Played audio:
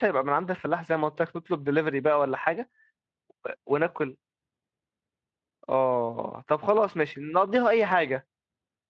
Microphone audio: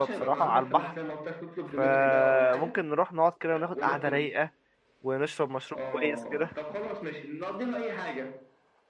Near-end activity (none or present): present